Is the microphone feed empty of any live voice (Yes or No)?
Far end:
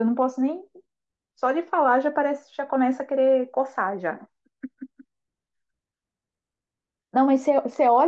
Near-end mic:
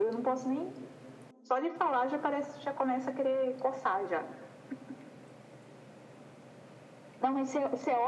Yes